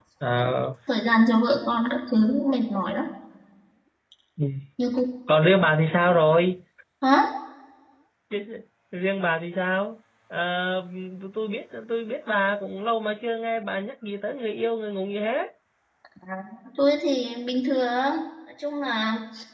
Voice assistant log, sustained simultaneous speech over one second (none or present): none